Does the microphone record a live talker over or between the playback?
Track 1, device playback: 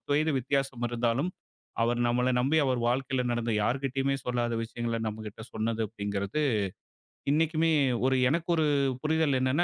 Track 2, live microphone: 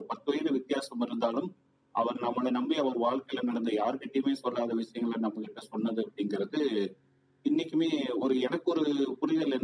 No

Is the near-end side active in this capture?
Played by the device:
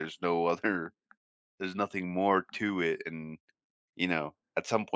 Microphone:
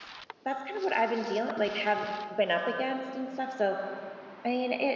Yes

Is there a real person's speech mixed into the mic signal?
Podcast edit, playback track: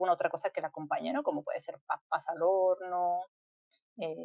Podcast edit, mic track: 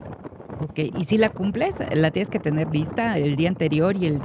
Yes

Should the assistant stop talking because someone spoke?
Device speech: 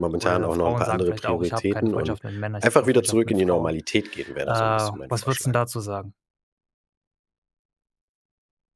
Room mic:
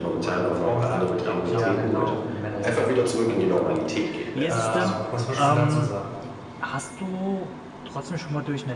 Yes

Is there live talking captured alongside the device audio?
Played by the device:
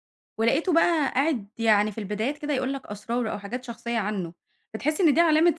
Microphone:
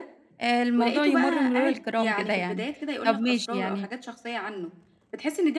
Yes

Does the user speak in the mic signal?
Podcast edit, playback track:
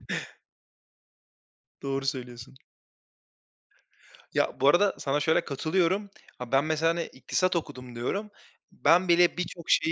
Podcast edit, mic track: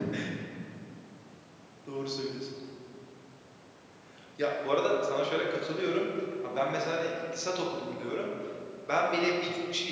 No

